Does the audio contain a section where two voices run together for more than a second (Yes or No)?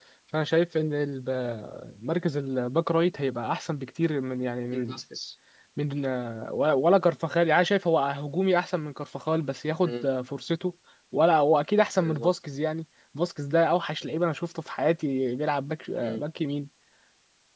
No